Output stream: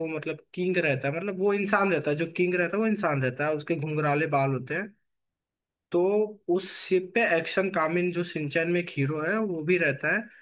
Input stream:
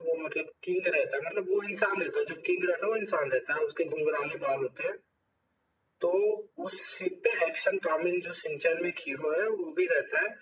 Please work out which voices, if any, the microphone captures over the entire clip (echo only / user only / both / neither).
echo only